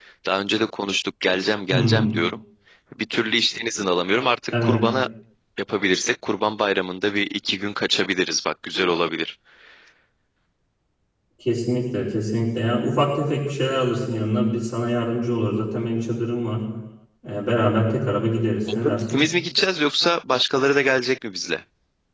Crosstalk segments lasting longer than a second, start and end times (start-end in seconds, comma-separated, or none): none